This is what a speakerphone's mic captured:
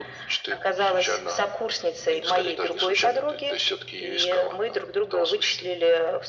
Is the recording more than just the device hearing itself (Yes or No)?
No